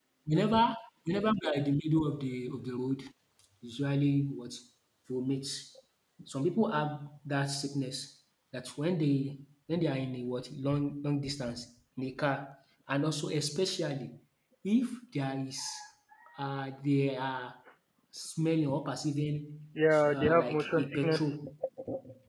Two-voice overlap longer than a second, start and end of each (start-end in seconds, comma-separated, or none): 20.1-21.3